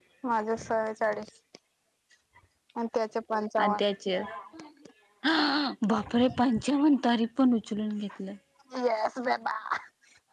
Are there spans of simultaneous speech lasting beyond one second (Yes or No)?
No